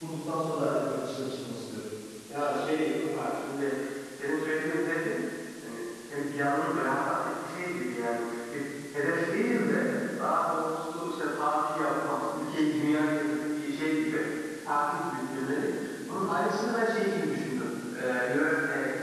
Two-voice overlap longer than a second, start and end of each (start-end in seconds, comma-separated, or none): none